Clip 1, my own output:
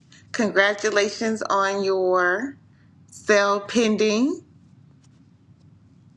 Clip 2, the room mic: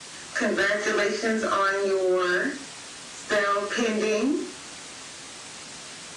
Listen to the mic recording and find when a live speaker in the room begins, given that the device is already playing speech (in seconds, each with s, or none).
none